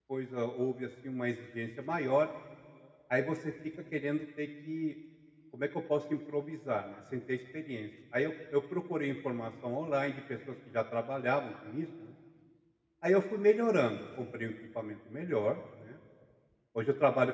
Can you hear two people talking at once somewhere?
No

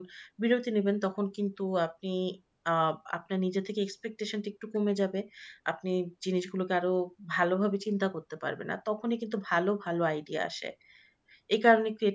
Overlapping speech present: No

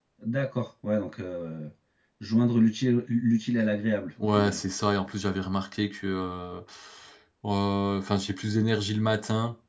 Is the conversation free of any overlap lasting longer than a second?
Yes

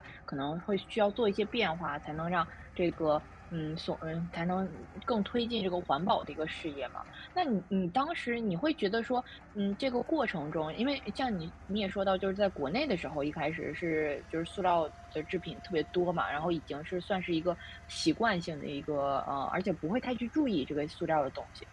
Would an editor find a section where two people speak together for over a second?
No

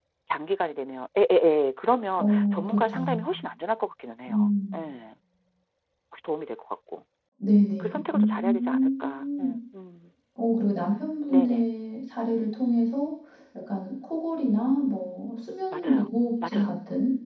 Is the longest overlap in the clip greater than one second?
Yes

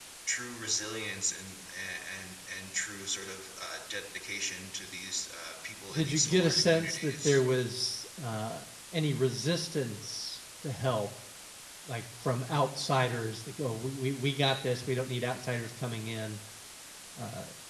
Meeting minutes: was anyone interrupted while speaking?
Yes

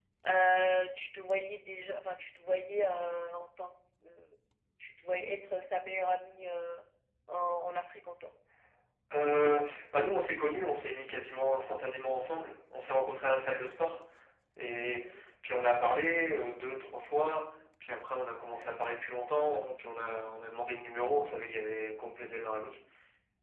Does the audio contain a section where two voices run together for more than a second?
No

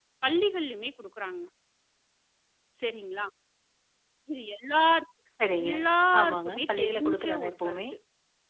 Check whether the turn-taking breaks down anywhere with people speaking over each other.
Yes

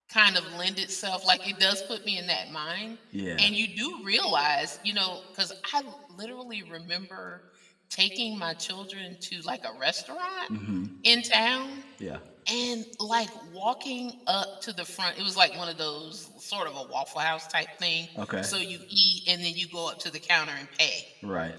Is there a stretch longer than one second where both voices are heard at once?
No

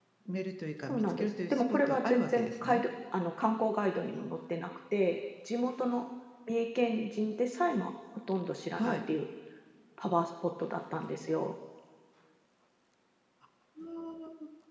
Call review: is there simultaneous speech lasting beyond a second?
Yes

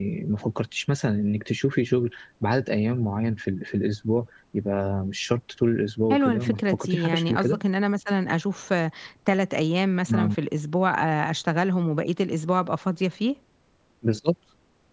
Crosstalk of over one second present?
Yes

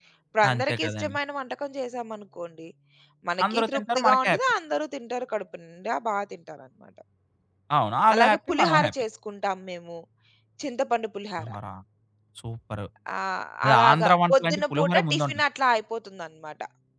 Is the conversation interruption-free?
No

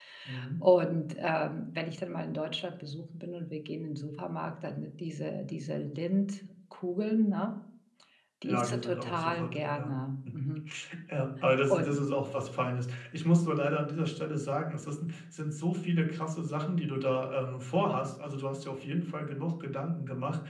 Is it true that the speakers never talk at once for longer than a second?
No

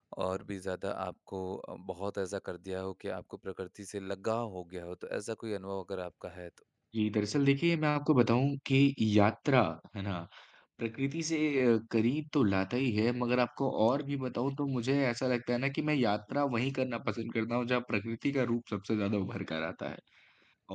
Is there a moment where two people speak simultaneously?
No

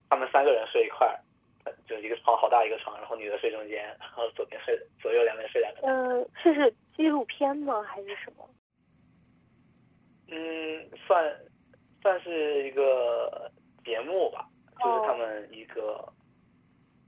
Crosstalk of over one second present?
No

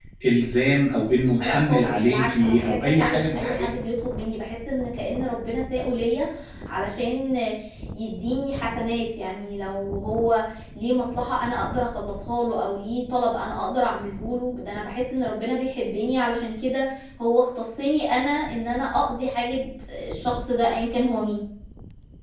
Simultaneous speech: Yes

